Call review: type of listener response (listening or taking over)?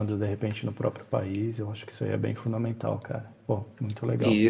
taking over